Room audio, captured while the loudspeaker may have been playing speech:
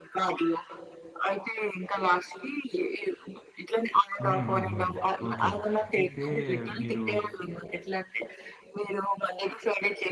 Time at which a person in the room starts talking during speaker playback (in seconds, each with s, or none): 4.2 s